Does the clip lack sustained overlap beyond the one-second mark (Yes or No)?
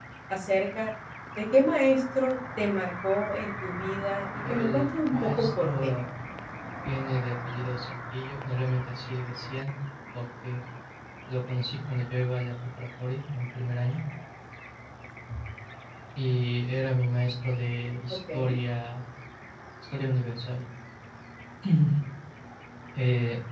No